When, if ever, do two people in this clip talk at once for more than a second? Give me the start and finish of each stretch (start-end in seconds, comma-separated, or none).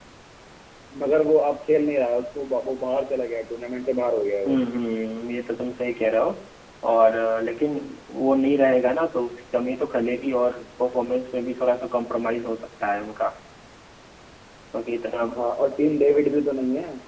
none